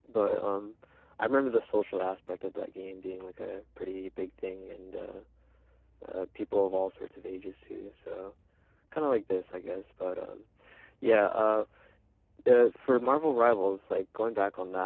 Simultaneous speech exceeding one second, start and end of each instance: none

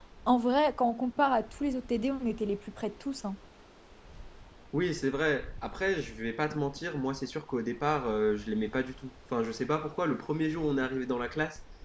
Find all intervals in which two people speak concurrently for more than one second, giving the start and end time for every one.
none

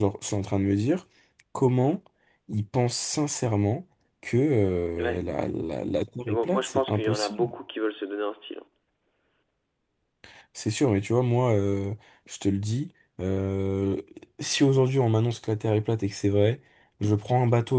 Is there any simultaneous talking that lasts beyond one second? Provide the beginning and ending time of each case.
6.3-7.5

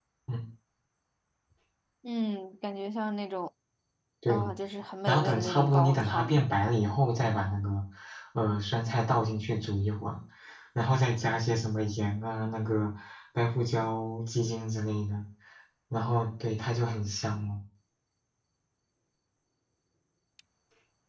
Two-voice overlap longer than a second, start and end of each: 5.1-6.4

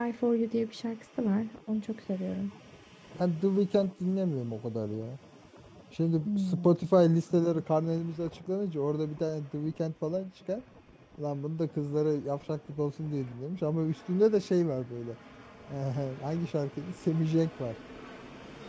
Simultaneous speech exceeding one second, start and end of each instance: none

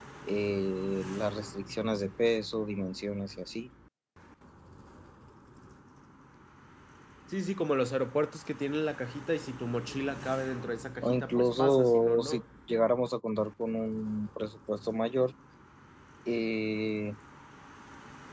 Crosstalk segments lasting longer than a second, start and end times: 11.0-12.4

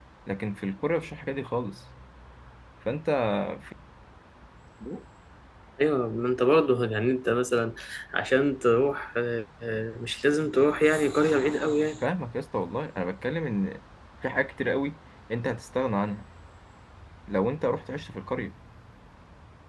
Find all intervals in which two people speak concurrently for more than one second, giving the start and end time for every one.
none

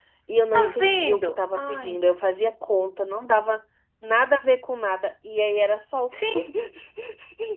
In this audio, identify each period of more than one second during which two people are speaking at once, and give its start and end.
0.5-2.0

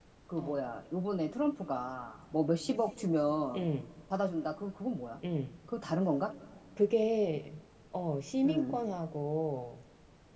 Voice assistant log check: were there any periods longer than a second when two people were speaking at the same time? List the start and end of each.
none

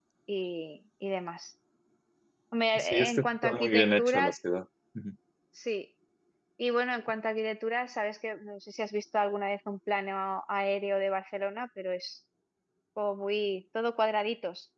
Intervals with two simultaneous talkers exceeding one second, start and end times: 2.8-4.3

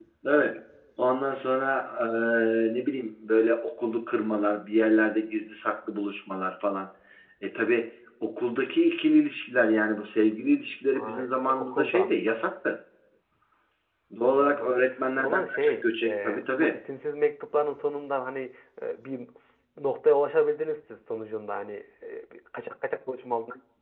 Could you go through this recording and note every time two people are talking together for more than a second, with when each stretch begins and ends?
10.9-12.1, 15.2-16.8

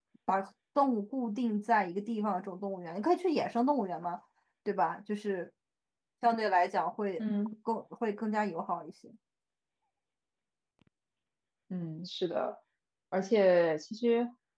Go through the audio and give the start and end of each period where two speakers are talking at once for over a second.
none

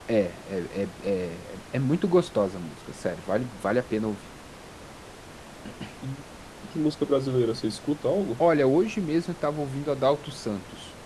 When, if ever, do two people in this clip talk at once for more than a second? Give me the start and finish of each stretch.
none

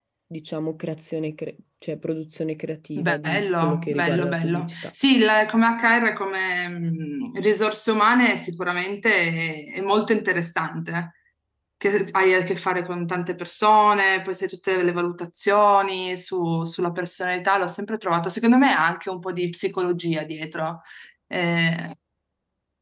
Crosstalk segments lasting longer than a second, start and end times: 3.0-4.9

